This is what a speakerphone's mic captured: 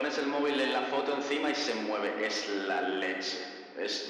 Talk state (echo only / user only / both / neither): echo only